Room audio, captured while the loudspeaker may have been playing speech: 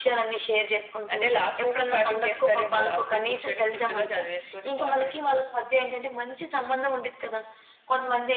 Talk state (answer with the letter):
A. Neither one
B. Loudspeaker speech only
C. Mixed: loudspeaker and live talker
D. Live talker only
B